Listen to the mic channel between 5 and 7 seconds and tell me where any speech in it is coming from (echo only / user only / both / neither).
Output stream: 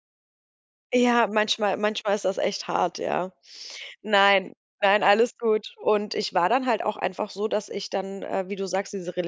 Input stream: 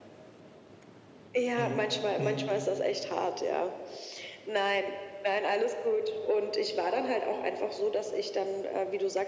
echo only